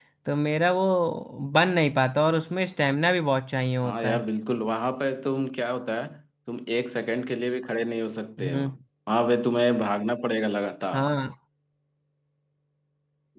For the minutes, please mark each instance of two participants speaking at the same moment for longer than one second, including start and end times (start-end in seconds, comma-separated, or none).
none